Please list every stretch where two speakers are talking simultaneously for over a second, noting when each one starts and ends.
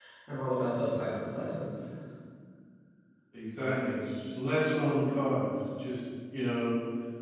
none

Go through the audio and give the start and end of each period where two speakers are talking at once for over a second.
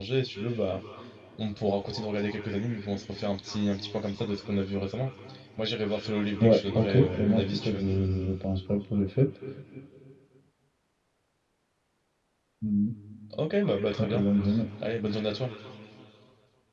6.4-7.8

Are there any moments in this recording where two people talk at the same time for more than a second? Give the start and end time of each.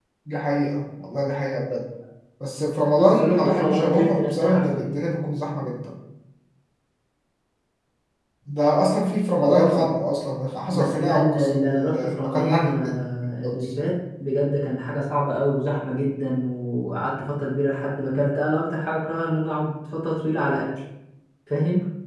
2.9-4.9, 10.7-12.9

